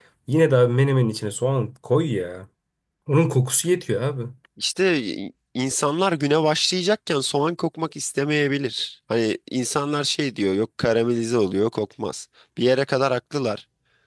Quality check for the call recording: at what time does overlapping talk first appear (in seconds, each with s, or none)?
none